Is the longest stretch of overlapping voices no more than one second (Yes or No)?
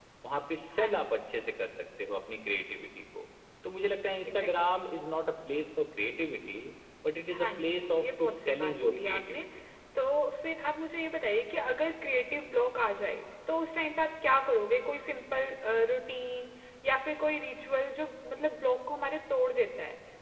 No